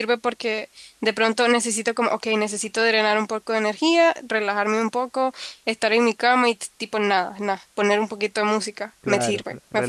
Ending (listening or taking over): taking over